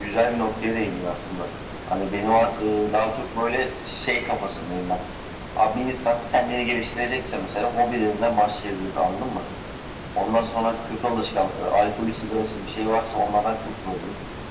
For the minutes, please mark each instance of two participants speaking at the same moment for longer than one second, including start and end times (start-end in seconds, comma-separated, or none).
none